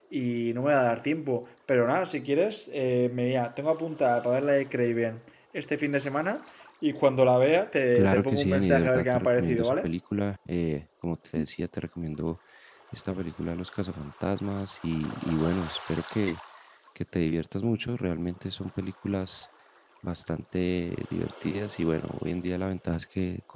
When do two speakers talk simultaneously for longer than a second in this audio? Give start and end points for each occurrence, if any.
8.0-9.9

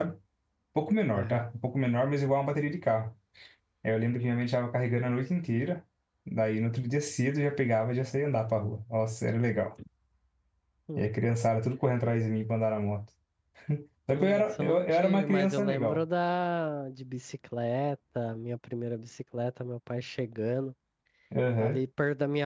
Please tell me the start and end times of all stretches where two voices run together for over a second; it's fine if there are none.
14.1-16.0

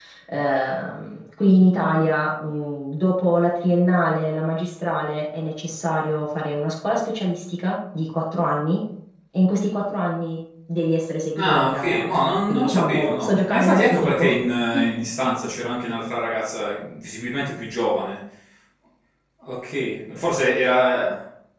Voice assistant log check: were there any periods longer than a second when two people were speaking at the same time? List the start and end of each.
11.4-14.2

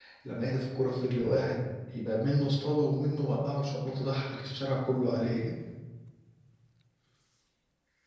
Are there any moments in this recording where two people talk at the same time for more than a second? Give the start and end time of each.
none

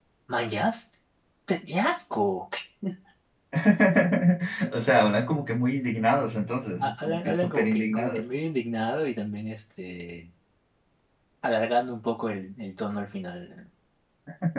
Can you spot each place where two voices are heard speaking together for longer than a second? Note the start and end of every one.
6.8-8.2

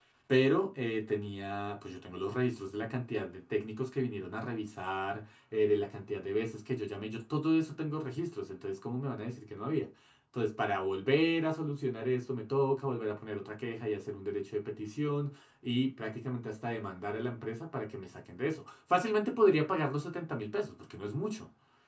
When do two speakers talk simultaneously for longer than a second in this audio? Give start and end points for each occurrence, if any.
none

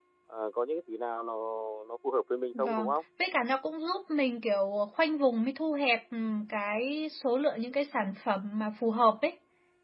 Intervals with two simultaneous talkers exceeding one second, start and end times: none

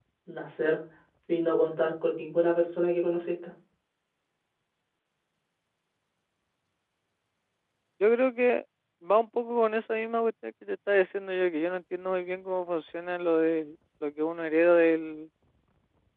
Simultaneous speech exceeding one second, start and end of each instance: none

